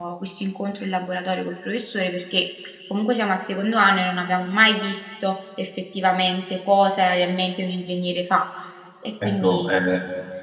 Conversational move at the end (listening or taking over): taking over